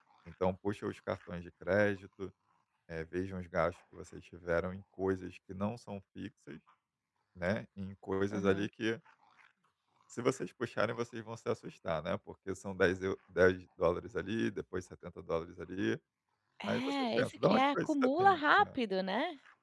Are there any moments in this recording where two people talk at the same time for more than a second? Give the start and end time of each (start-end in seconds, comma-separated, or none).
16.7-18.4